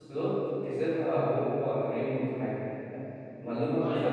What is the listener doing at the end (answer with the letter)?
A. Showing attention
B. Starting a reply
A